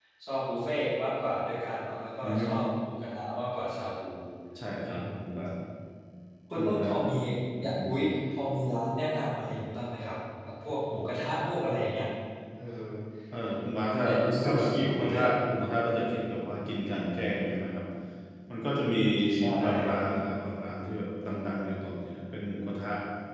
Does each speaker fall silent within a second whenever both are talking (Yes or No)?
No